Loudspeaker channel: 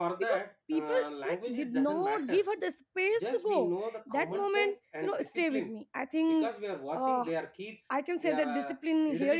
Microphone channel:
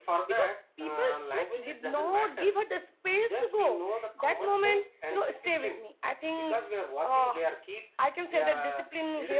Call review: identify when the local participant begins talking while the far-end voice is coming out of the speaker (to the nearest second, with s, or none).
none